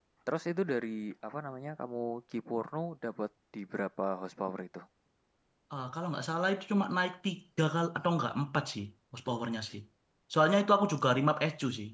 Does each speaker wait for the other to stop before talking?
Yes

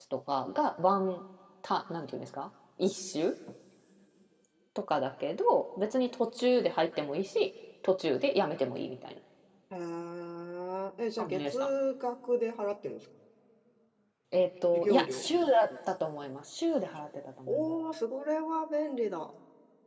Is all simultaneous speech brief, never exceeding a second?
Yes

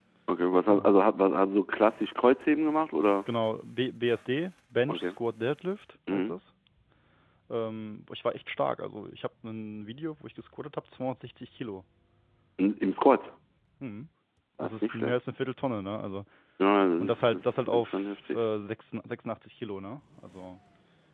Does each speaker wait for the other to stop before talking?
No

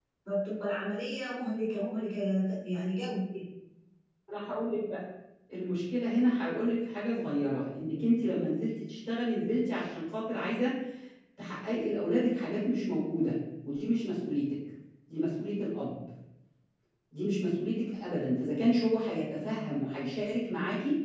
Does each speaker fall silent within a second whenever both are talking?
Yes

